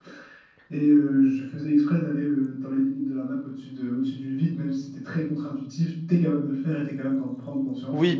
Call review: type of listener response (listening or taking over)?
taking over